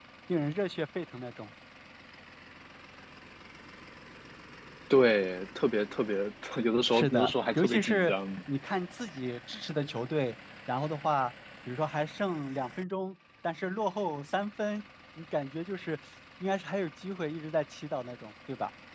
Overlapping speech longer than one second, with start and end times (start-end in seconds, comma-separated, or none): 6.9-8.1